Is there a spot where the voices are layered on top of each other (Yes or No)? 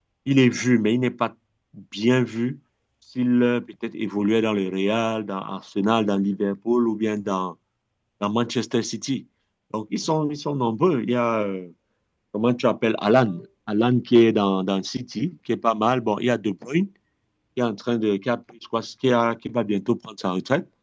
No